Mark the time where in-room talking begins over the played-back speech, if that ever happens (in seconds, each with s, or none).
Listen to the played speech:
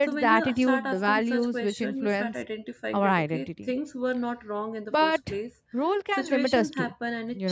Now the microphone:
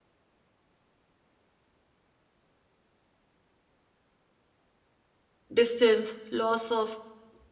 5.6 s